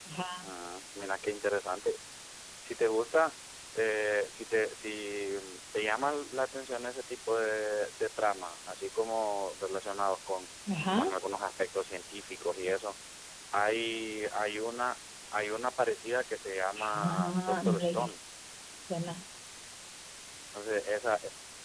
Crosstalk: present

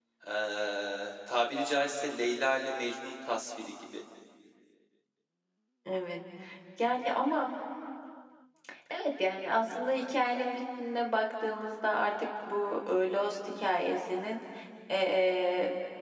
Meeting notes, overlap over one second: none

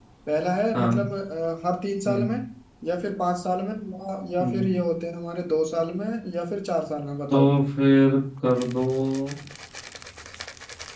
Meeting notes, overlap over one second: none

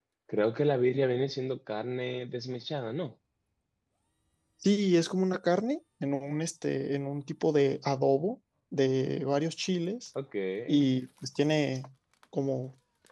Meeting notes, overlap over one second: none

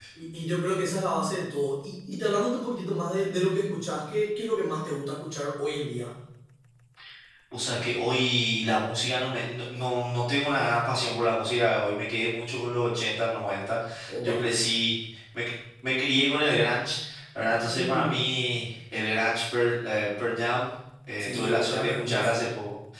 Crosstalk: present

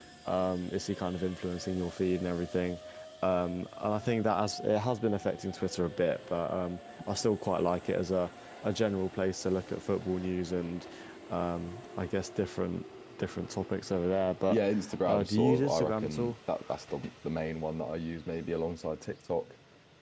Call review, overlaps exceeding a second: present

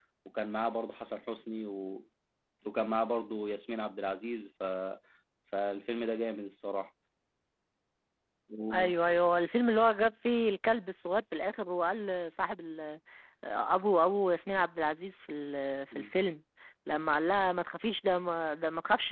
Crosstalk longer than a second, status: none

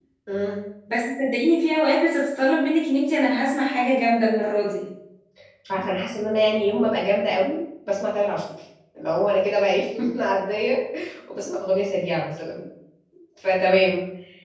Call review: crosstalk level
none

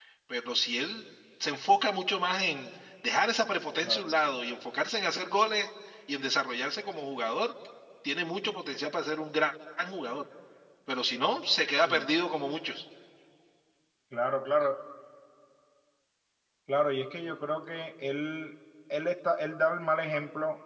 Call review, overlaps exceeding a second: none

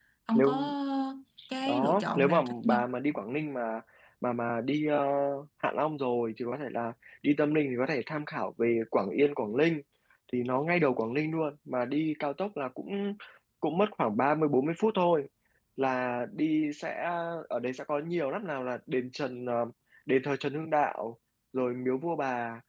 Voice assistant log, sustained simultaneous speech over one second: present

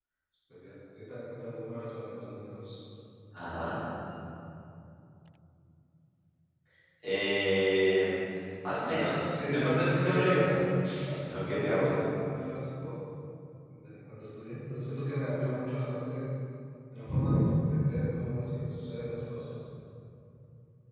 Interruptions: present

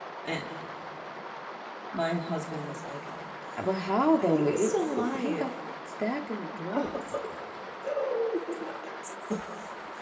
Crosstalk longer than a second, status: present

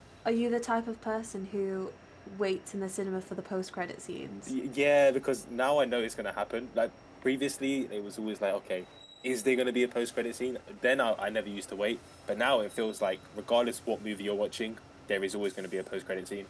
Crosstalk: none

